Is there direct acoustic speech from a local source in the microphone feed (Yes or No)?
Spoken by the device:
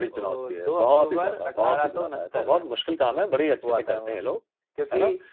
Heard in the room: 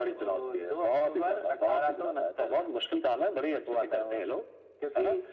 No